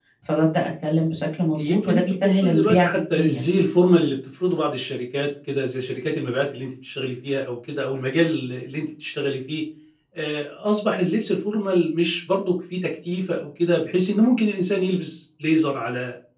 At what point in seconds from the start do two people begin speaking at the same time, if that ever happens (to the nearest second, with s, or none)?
2 s